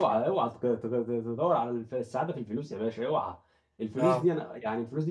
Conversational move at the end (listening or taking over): listening